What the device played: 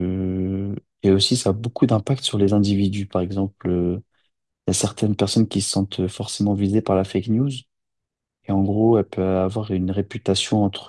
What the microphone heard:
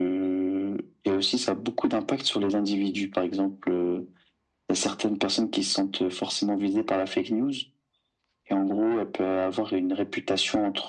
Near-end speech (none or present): none